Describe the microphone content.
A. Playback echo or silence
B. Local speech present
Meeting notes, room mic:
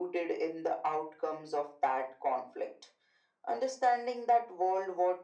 A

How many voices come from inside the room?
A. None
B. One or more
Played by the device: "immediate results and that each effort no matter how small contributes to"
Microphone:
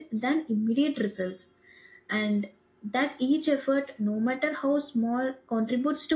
A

